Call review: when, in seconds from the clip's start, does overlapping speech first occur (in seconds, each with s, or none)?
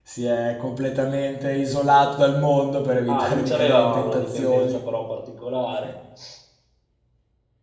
3.1 s